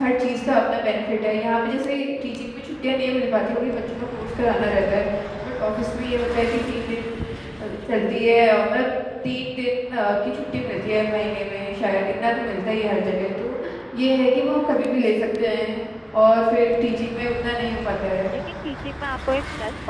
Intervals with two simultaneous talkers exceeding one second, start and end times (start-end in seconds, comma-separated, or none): none